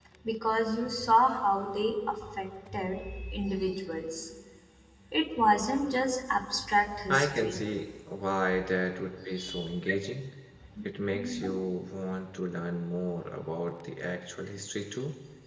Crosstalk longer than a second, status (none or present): none